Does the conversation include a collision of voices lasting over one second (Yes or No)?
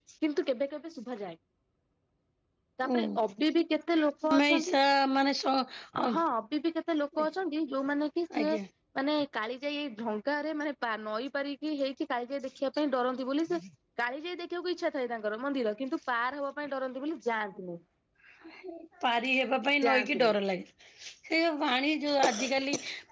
No